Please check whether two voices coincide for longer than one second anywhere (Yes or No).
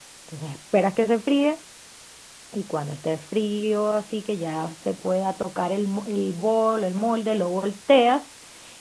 No